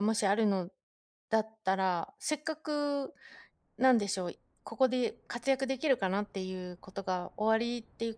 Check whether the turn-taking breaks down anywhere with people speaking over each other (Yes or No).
No